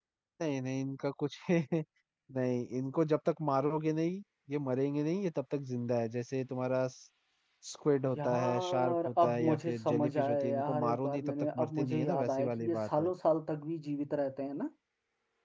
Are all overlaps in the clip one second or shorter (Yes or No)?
No